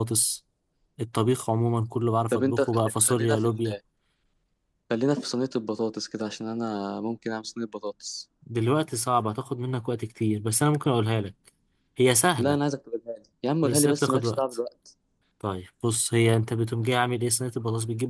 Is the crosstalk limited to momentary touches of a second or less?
No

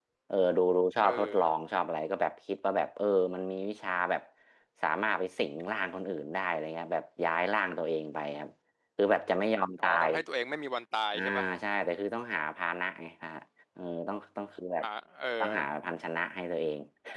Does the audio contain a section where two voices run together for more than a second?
No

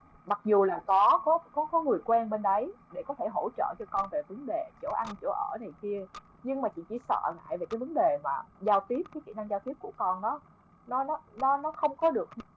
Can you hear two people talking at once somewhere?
No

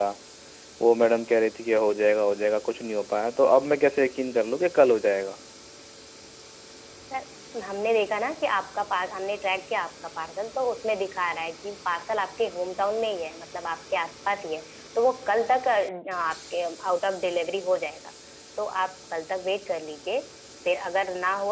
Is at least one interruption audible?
No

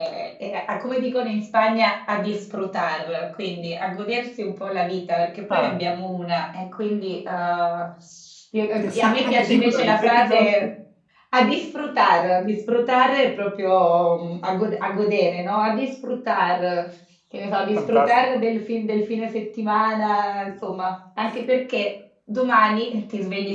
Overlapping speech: Yes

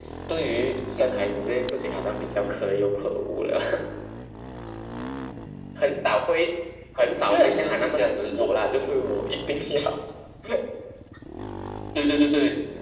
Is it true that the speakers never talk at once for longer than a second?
No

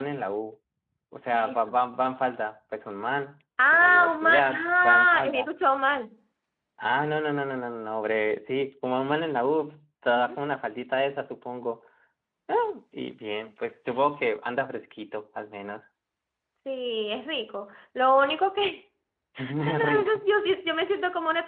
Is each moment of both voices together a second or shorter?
No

